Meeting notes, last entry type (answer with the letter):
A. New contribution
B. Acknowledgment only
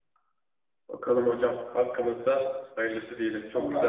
A